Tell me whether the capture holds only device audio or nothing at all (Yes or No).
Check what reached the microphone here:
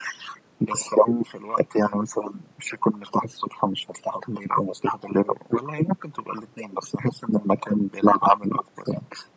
Yes